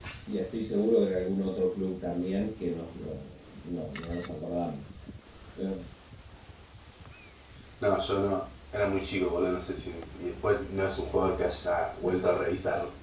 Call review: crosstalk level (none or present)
none